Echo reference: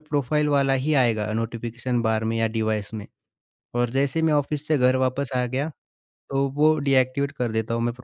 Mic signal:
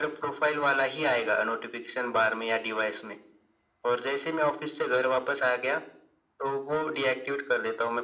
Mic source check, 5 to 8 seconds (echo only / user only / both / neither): echo only